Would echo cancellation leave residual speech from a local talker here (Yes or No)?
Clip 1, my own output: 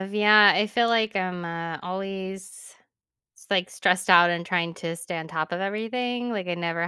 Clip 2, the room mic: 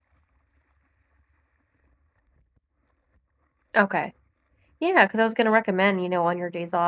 Yes